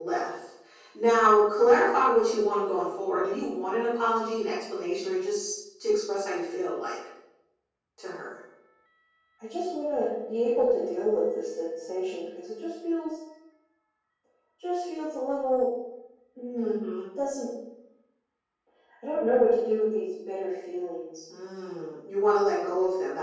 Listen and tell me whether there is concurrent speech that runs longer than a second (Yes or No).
No